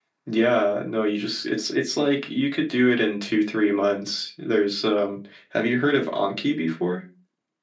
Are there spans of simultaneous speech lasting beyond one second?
No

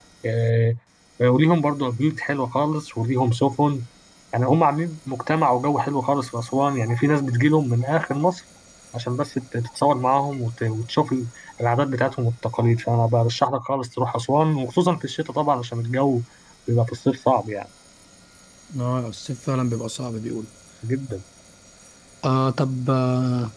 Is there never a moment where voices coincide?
Yes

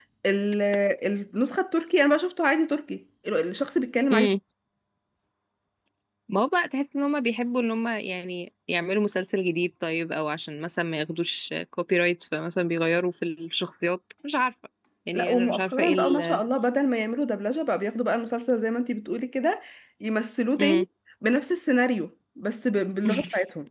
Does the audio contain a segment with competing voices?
Yes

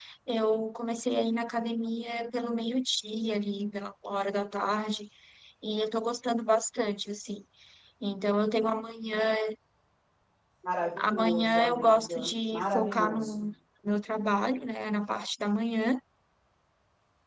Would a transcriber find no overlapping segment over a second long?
No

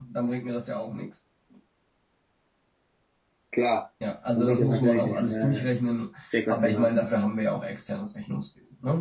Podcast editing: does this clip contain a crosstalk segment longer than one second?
Yes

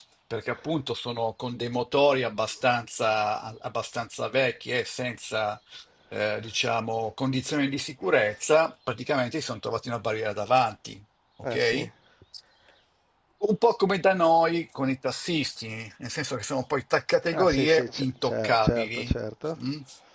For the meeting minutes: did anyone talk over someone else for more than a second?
Yes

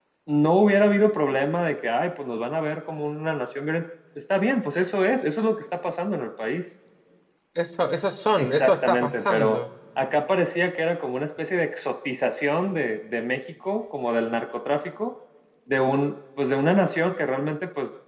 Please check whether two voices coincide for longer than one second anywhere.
Yes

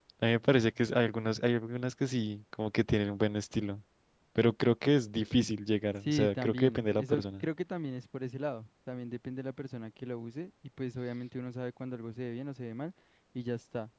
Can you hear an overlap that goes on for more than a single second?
Yes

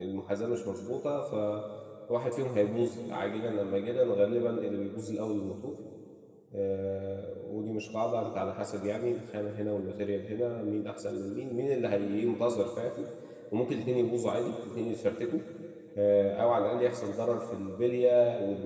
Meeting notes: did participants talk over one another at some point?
No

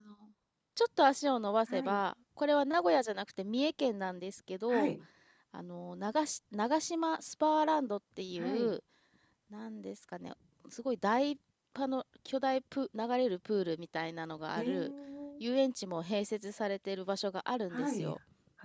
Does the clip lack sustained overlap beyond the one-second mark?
Yes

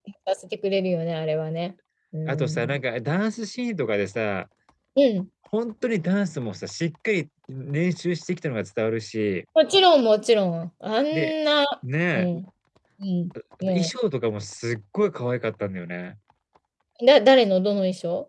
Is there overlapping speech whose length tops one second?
No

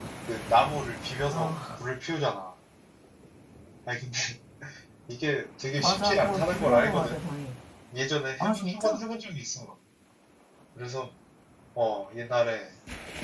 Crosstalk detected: Yes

